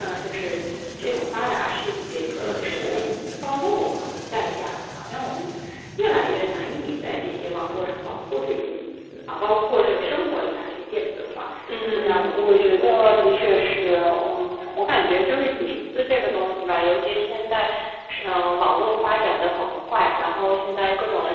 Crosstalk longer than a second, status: present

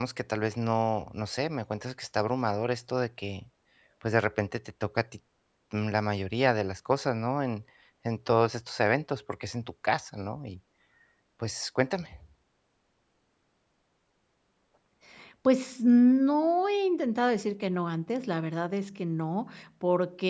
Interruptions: none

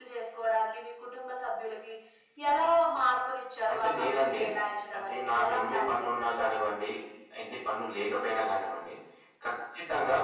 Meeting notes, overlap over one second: present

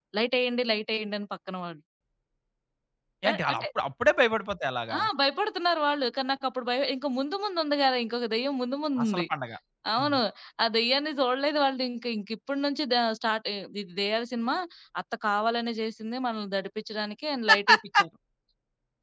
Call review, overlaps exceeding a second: none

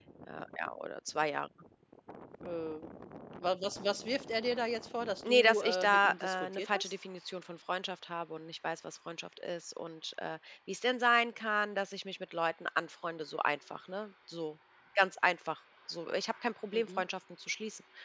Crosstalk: present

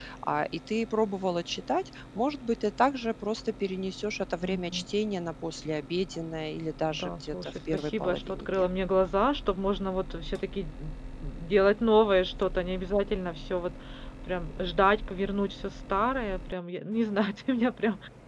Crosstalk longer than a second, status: present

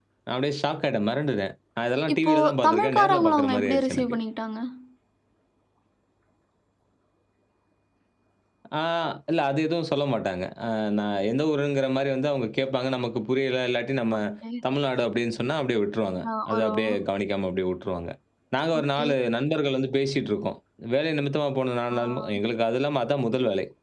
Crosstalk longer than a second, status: present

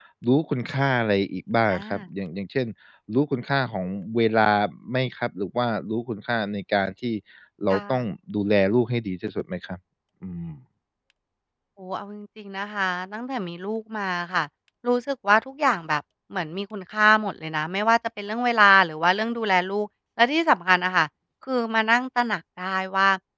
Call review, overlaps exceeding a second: none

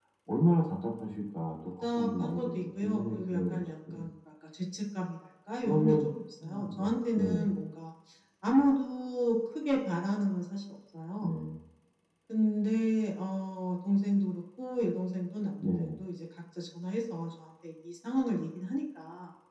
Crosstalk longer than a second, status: present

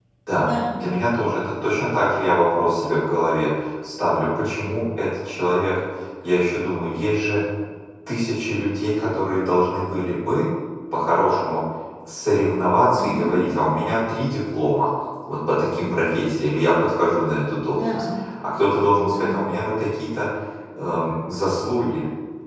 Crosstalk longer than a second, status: none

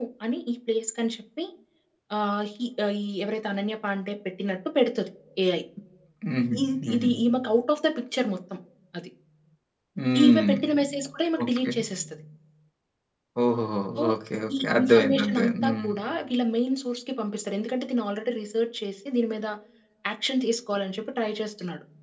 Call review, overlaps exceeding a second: present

